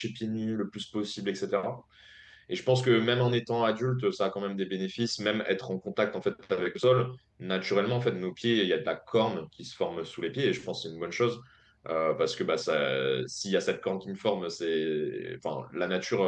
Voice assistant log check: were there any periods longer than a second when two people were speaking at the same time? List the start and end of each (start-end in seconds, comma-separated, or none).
none